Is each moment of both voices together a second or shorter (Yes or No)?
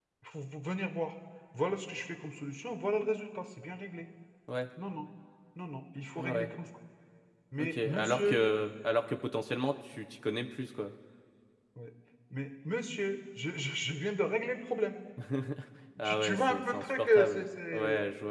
No